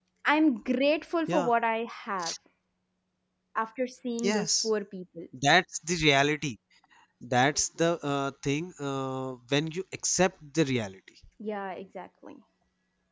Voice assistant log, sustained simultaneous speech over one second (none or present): none